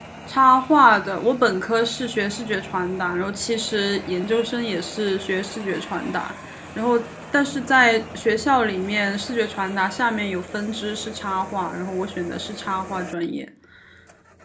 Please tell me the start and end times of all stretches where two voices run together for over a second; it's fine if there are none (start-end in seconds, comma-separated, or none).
none